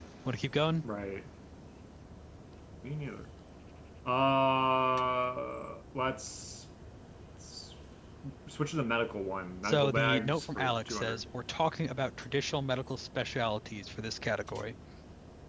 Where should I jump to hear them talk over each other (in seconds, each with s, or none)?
9.6 s